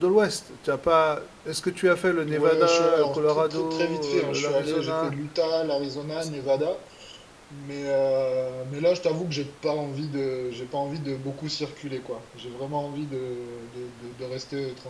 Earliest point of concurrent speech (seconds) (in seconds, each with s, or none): 2.3 s